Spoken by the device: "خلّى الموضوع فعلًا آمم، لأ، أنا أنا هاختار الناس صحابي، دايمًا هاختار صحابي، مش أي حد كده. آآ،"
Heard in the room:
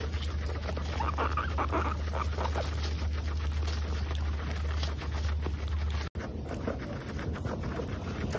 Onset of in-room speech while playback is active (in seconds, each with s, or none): none